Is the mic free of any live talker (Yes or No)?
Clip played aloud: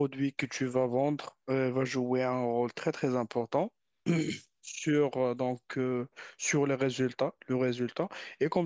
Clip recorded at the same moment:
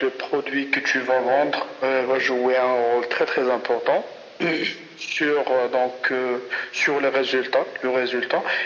No